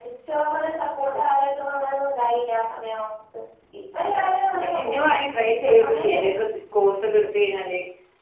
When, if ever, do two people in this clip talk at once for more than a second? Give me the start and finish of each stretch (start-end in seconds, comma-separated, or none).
4.6-6.3